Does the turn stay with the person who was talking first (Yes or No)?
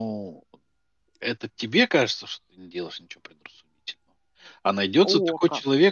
Yes